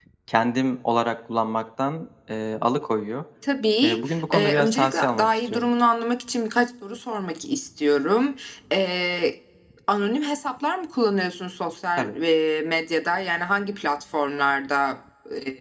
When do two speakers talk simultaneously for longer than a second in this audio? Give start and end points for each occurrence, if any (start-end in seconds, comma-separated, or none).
3.8-5.7